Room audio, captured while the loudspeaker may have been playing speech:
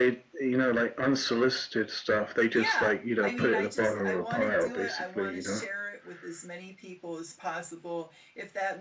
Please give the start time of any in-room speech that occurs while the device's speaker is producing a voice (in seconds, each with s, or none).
2.5 s